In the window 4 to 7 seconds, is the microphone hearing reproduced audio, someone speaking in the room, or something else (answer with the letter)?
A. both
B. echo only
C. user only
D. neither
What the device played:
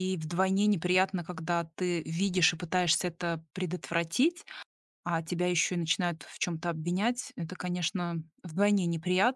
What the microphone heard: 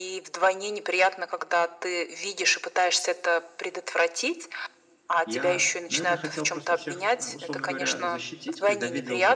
A